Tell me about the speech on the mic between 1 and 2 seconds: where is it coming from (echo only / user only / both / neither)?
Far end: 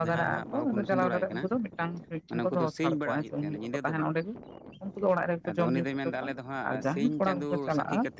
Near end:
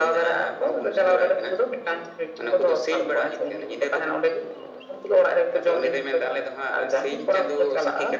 echo only